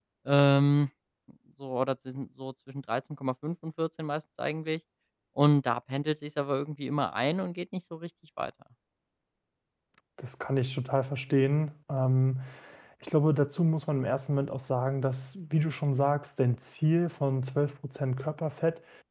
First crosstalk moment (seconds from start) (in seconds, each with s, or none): none